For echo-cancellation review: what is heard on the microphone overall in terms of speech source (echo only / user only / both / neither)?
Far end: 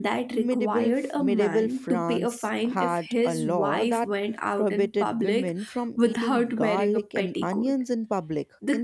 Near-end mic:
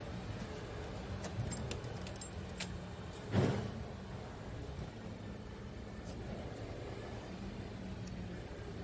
neither